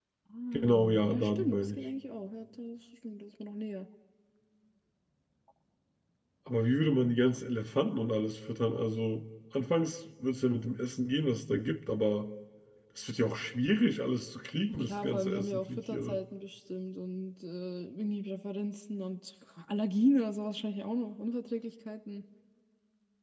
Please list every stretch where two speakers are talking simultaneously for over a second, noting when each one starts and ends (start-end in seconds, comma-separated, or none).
0.5-1.8, 14.7-16.2